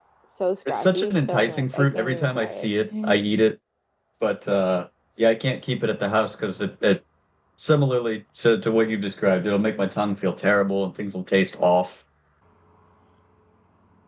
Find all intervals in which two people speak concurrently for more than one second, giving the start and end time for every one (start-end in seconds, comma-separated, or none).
0.7-3.1